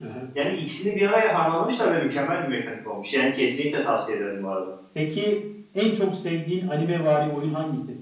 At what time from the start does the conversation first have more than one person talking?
none

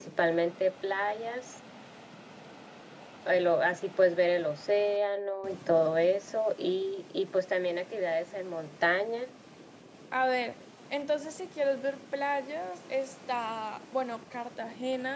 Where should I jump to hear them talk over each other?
none

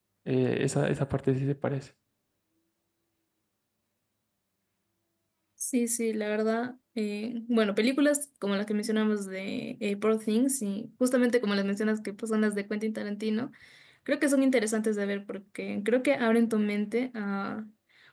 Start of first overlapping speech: none

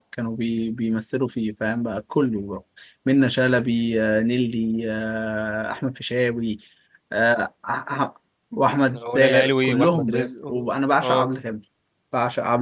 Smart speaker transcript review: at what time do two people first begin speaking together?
8.9 s

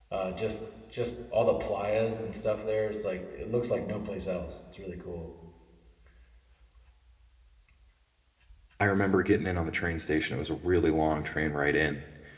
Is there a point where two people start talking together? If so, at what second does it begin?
none

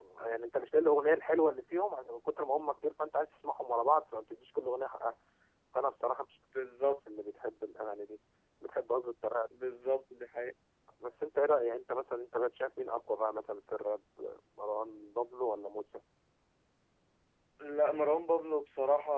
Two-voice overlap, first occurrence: none

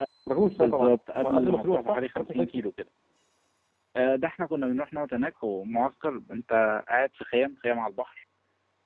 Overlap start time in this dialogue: 0.6 s

